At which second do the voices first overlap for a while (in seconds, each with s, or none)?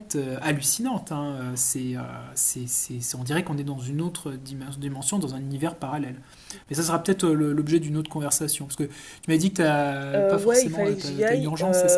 10.1 s